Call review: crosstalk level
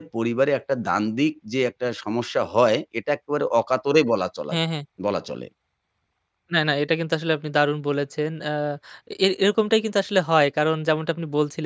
none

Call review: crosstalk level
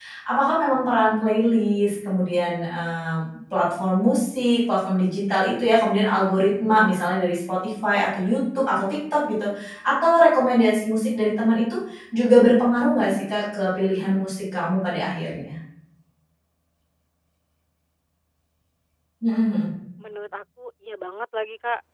none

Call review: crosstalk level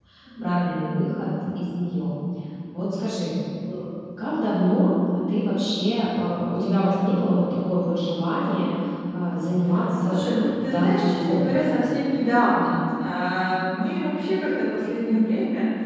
present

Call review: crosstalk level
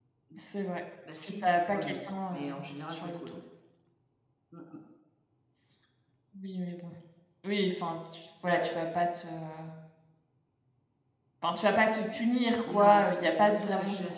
present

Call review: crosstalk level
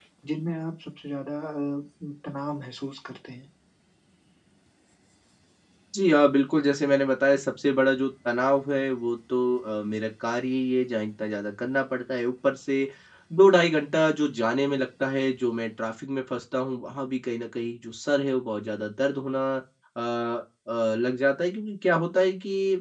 none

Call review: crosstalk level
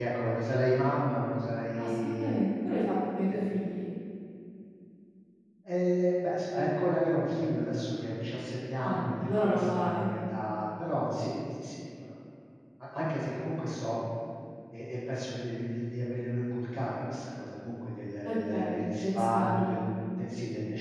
present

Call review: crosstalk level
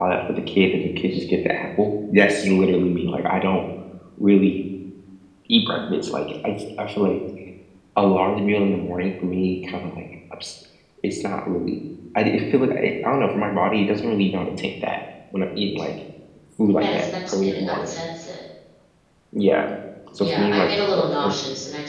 present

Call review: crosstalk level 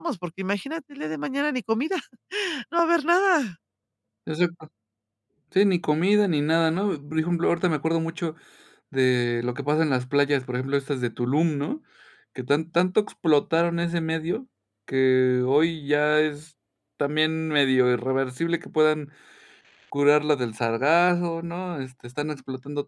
none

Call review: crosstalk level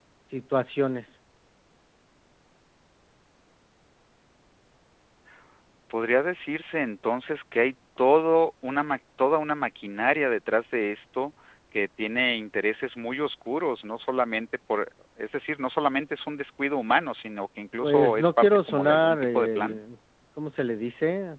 present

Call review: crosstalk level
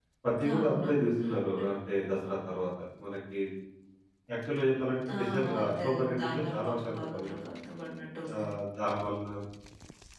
present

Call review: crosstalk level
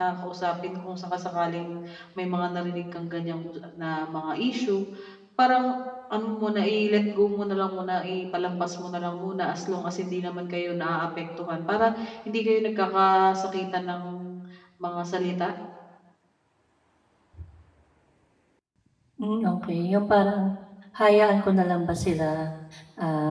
none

